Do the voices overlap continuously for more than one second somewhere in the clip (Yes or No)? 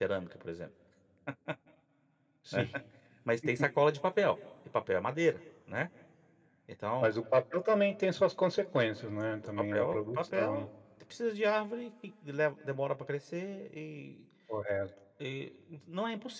Yes